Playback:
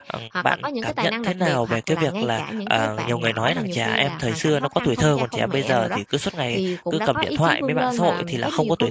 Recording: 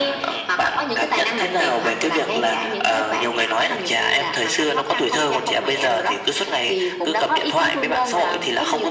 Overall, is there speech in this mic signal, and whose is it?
echo only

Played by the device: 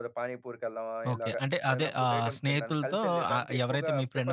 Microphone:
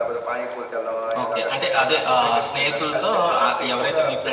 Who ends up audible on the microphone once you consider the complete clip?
echo only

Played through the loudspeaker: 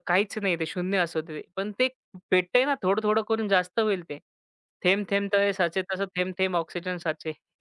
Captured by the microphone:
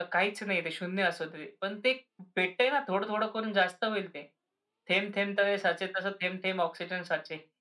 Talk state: echo only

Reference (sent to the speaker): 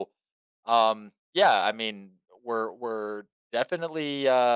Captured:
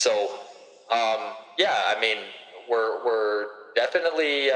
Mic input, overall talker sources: echo only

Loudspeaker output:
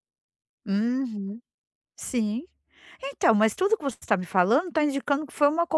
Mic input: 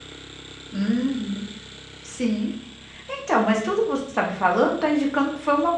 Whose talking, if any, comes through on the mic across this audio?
echo only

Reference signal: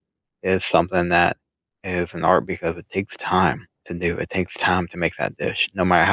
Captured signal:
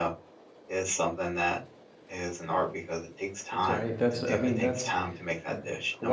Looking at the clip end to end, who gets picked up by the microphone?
both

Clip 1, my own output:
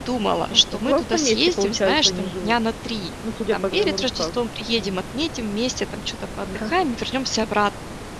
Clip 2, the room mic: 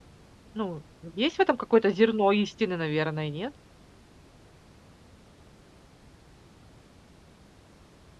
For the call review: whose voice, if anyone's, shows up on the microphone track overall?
user only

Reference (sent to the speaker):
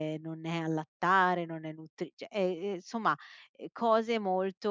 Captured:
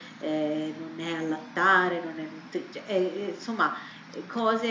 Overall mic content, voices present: echo only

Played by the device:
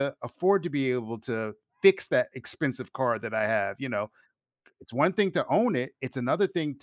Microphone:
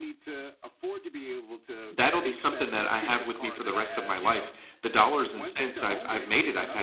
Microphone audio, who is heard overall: both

